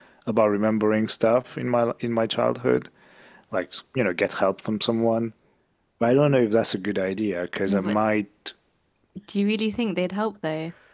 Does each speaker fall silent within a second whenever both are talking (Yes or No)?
Yes